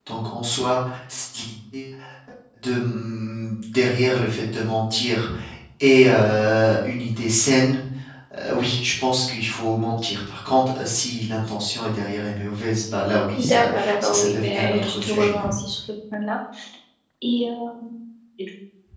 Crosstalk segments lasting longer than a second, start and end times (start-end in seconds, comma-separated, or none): 13.3-15.4